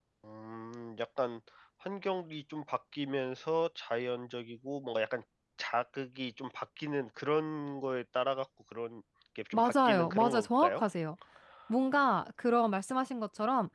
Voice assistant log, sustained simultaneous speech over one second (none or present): present